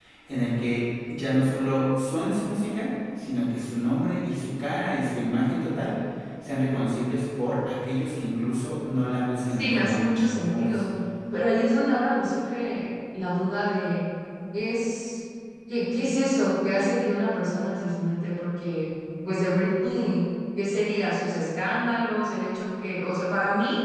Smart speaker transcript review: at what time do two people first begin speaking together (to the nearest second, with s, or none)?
9 s